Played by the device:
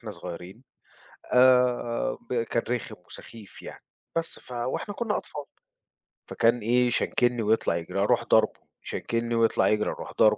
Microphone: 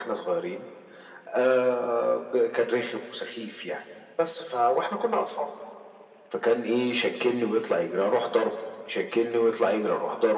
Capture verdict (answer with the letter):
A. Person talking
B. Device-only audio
B